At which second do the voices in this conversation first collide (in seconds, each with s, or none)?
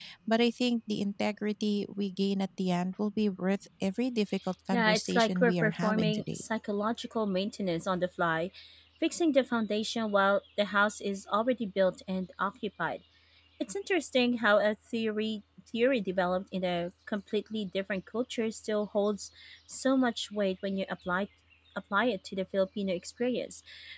4.7 s